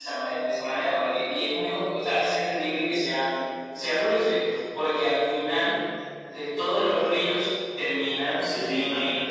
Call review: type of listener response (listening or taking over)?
listening